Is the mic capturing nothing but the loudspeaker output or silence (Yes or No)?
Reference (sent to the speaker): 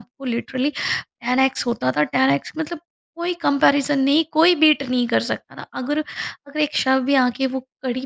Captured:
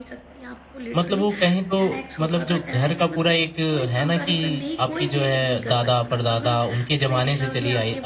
No